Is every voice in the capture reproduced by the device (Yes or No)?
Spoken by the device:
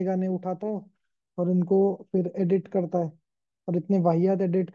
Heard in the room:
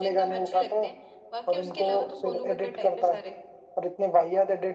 No